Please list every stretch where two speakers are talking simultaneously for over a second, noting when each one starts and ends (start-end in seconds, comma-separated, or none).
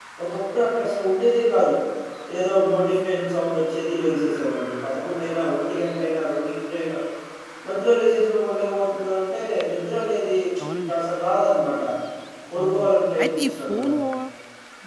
12.6-13.9